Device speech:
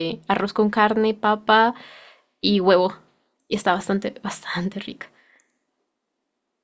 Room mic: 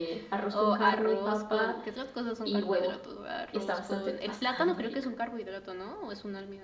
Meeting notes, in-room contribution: present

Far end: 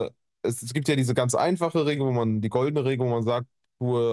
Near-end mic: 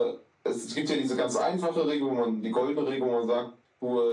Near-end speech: none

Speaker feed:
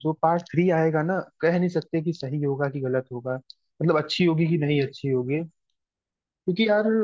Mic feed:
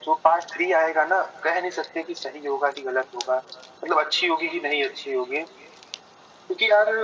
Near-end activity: none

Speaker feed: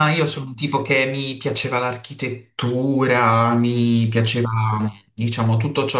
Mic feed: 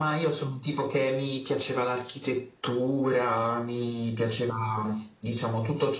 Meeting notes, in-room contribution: none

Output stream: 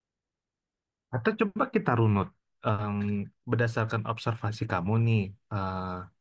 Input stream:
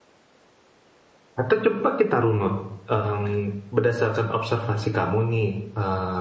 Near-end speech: none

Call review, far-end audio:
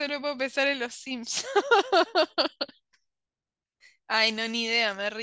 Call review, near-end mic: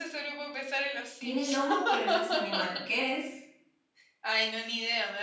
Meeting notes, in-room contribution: present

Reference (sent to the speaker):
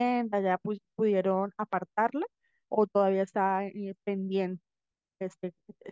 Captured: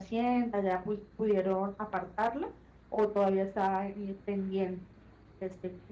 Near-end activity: none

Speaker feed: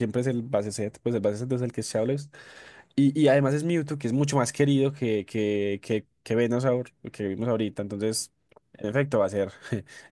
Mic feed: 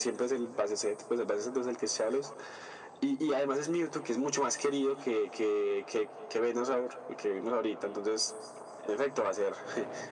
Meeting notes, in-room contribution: none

